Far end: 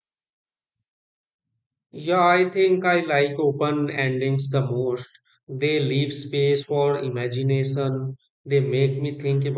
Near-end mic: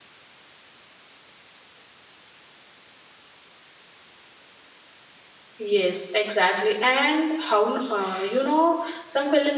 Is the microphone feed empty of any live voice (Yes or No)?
No